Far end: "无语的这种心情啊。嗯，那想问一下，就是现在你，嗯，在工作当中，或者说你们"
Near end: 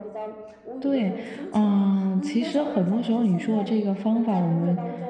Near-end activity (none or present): present